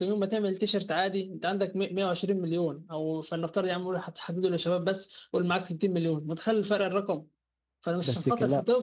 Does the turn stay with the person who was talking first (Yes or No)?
Yes